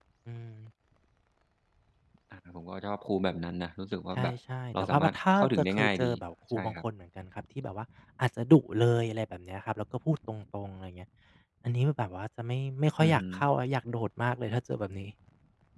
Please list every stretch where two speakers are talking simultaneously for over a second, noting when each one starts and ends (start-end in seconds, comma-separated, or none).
4.7-6.1